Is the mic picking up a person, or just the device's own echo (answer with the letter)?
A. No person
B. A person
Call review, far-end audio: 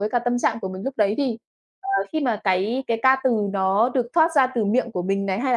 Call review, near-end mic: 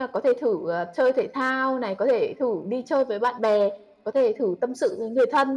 B